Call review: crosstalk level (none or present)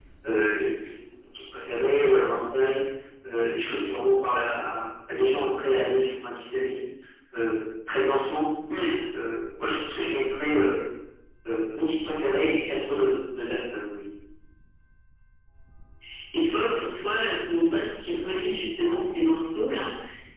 none